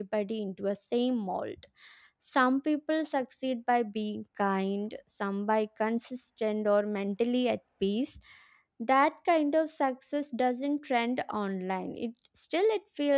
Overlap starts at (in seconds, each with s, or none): none